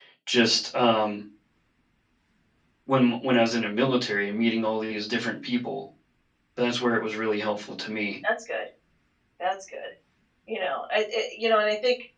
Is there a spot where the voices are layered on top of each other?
No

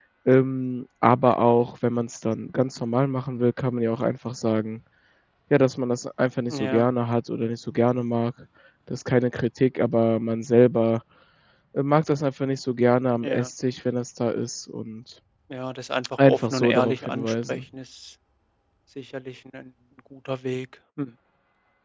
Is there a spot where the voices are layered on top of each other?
Yes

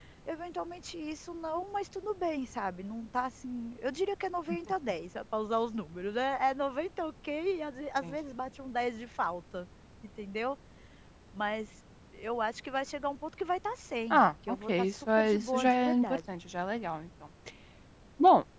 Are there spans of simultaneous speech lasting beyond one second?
Yes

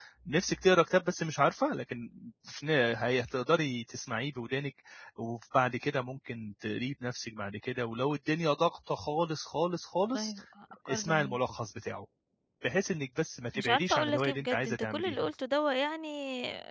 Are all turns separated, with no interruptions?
No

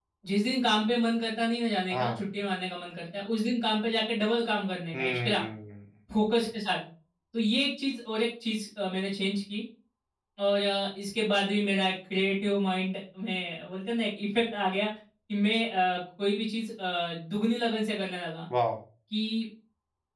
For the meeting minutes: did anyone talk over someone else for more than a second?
No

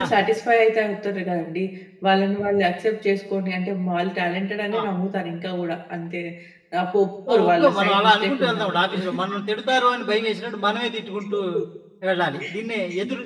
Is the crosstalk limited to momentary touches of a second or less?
No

